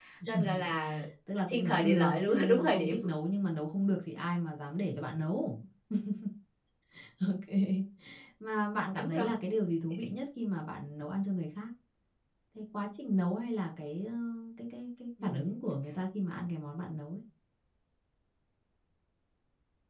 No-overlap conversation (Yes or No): No